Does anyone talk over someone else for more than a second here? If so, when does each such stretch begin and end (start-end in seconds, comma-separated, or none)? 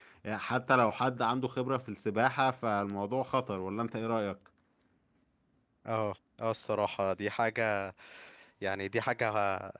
none